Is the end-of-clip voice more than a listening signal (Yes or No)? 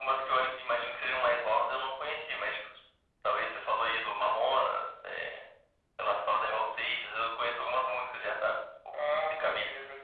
Yes